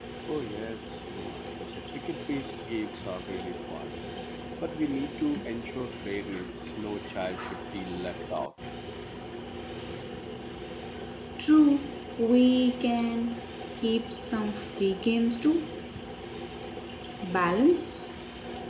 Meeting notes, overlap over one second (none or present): none